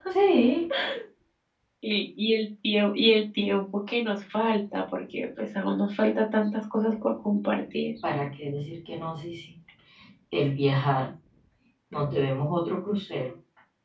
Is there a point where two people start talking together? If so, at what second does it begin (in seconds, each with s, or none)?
none